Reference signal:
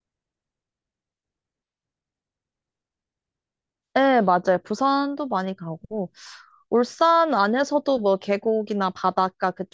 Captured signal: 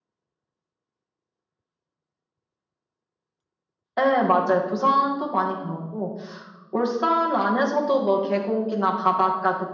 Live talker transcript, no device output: none

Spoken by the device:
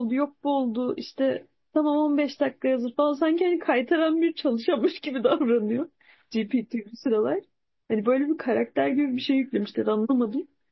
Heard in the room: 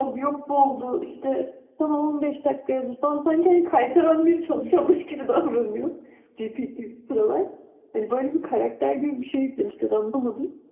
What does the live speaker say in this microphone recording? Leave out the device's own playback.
none

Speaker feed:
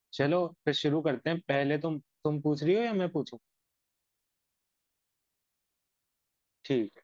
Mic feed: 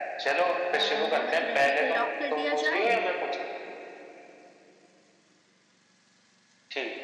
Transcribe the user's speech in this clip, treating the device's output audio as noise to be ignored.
अ, मोहम्मद रफी को लॉक कर दिया जाए

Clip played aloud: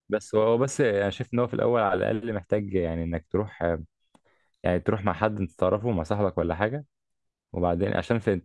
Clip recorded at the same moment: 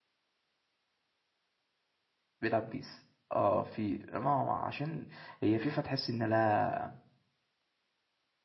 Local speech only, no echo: بيلعب بيس اه في ما هو عشان هي فيفا تحس ان لا

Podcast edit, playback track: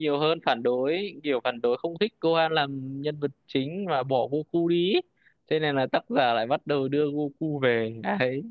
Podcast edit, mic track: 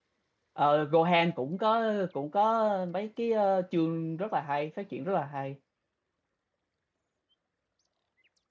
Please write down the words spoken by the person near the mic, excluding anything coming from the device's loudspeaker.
Ờ, Gohan cũng có cũng có mấy cái ờ, chương rất là hay, phát triển rất là hay.

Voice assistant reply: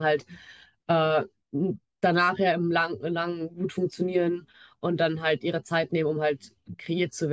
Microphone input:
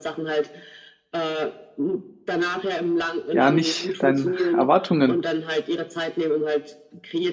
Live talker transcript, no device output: ja nicht deinen Erwartungen

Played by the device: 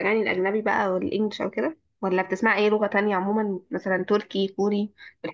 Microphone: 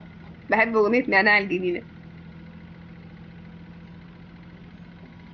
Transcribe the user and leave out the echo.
بحب أغنية نعناع الجميلة

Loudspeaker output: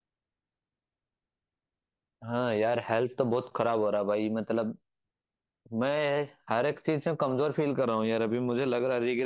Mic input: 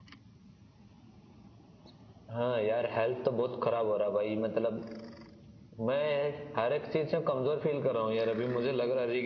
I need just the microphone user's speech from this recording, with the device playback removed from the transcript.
none

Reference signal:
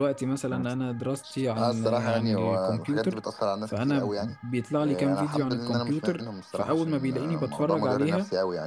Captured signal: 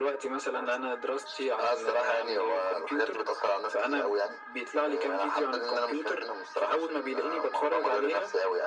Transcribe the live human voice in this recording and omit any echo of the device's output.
none

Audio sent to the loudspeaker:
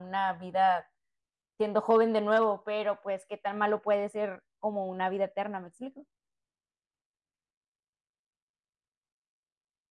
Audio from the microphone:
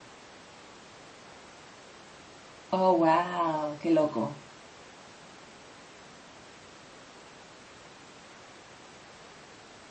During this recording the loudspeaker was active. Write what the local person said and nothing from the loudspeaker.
Oh, wow, qué loco.

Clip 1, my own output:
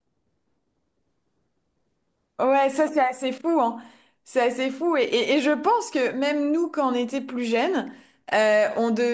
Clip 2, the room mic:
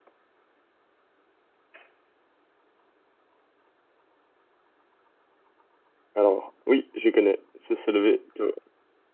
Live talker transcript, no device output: Alors, oui, je connais. C'est se lever tôt,

